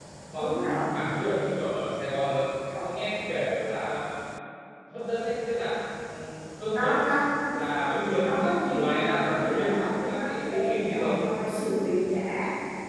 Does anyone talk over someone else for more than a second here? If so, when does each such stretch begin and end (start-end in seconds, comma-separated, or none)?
8.2-11.2